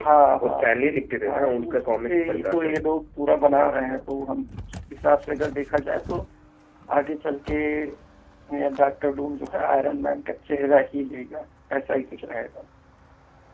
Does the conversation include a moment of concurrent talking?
Yes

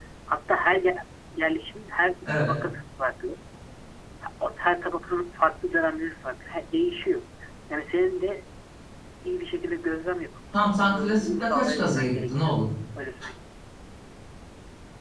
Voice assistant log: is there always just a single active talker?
No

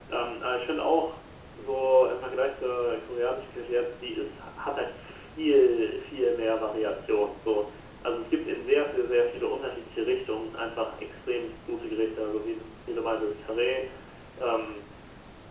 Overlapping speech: No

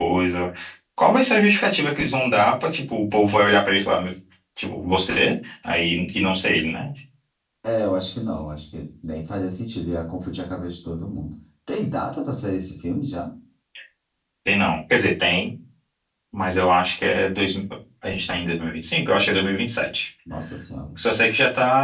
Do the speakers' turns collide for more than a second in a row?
No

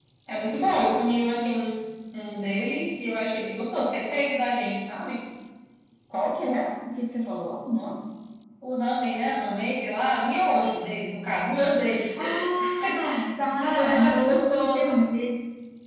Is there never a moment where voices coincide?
No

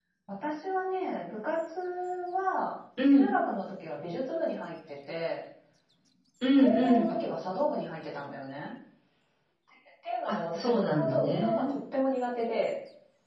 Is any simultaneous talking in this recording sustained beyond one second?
Yes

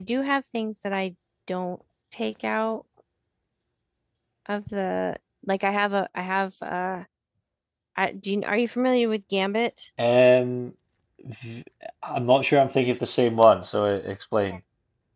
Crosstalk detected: No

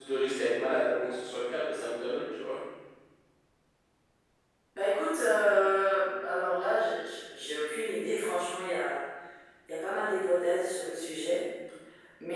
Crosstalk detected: No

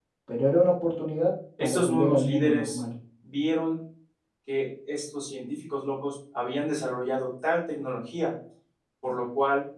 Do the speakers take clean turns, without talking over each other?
No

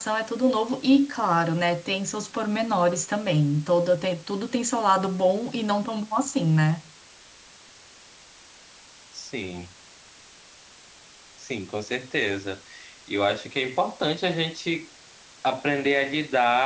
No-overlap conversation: Yes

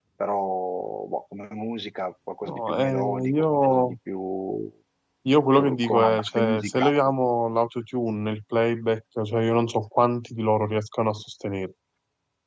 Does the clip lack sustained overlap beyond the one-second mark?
No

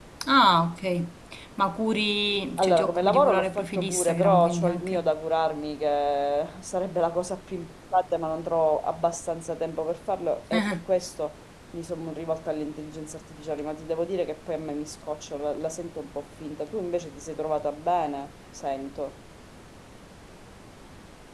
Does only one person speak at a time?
No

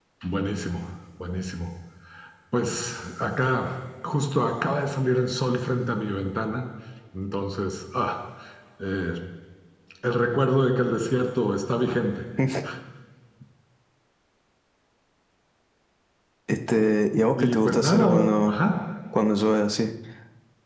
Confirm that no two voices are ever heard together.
No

